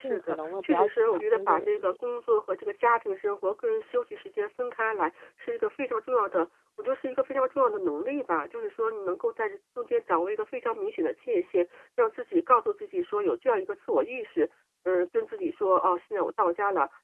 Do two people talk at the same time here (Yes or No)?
Yes